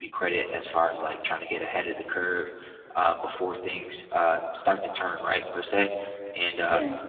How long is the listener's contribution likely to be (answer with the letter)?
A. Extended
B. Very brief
B